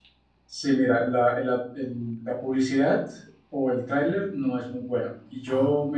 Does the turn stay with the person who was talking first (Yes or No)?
Yes